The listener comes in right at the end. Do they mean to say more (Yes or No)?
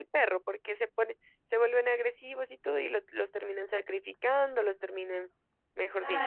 Yes